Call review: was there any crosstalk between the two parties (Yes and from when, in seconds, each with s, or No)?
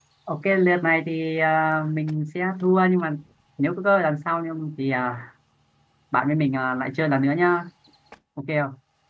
No